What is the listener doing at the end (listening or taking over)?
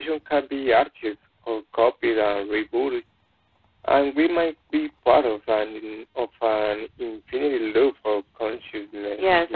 taking over